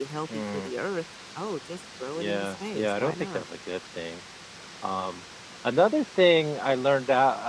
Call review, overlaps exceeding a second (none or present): present